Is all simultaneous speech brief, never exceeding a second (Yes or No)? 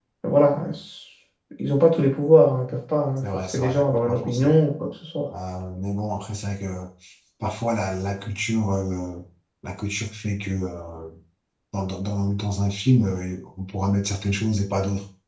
No